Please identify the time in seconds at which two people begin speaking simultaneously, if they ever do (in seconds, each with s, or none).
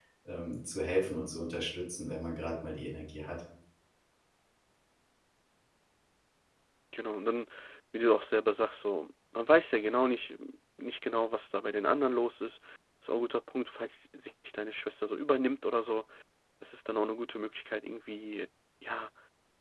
none